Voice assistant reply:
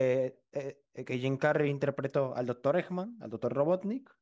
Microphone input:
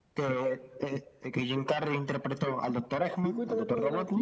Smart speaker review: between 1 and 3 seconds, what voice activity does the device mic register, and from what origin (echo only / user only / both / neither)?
echo only